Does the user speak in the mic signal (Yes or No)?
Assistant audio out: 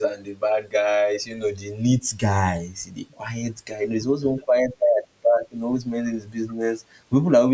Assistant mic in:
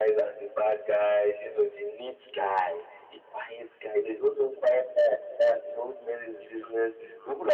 Yes